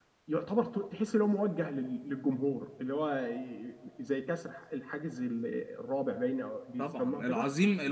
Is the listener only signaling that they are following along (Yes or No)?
No